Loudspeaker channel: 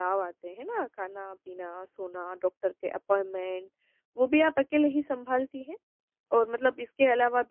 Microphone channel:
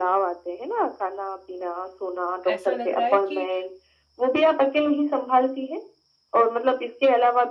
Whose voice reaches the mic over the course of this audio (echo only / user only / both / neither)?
both